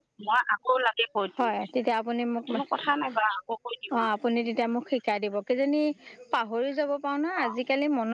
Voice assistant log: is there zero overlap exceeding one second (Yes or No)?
Yes